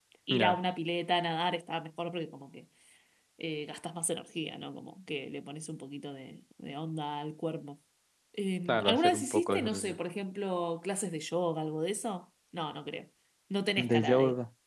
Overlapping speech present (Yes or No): Yes